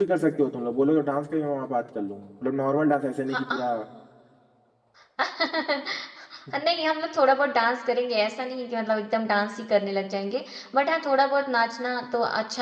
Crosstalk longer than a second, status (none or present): none